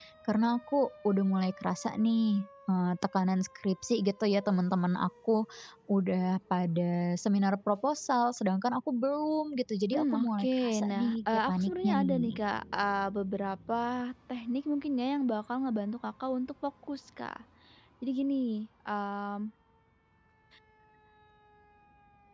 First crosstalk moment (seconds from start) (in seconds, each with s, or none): 9.9 s